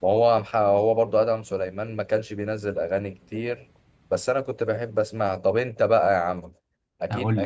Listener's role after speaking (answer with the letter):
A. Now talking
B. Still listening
B